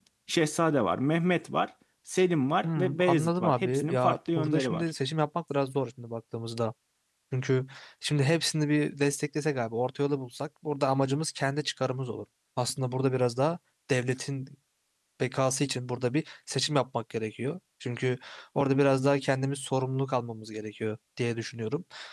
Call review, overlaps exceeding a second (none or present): present